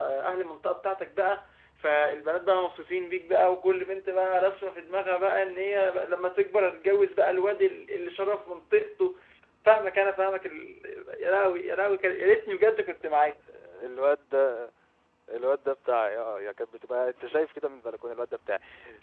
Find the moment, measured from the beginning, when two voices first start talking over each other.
none

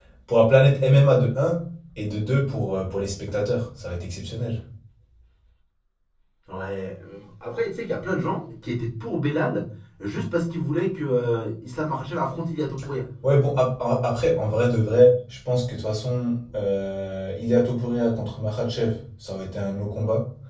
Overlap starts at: none

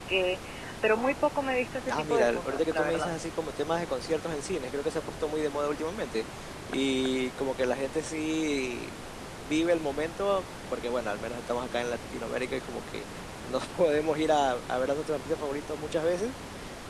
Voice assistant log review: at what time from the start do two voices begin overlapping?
1.8 s

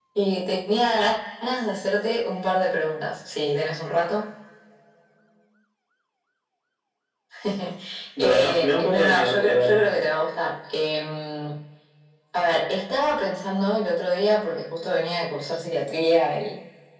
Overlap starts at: 8.2 s

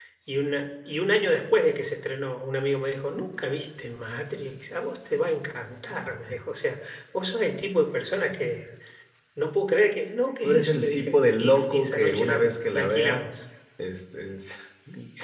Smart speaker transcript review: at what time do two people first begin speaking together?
10.4 s

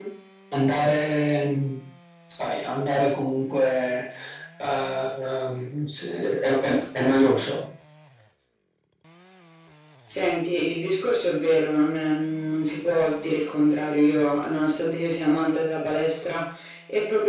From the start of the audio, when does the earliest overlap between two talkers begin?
none

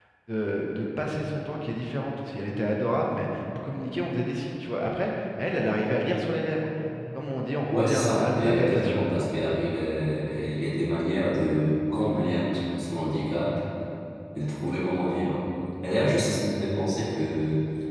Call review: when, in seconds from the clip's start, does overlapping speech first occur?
7.7 s

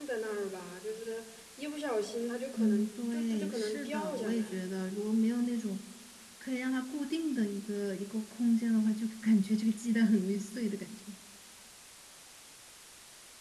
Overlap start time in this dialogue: 2.6 s

